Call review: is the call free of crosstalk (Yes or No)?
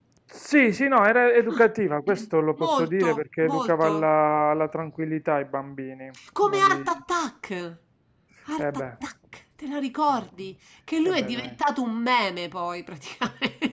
No